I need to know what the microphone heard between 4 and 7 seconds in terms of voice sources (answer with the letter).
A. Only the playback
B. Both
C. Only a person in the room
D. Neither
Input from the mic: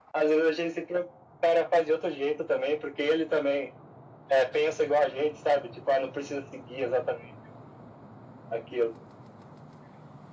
A